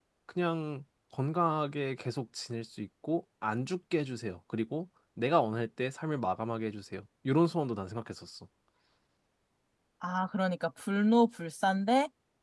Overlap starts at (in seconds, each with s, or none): none